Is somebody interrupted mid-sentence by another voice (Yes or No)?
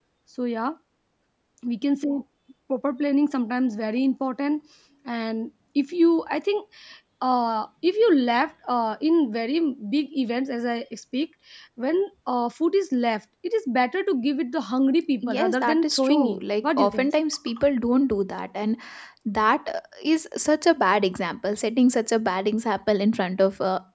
Yes